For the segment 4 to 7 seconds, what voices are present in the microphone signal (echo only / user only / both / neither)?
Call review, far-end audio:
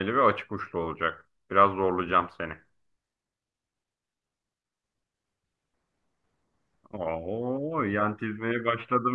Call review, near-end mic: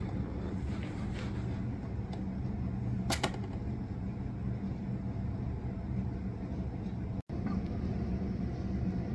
neither